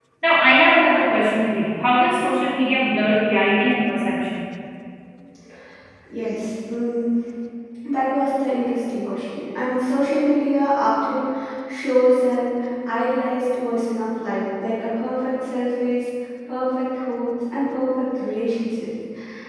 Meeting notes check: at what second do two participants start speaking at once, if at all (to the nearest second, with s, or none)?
none